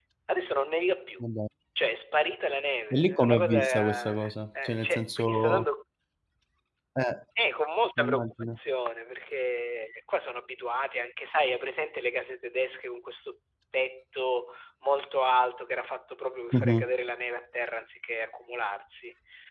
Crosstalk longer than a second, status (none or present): present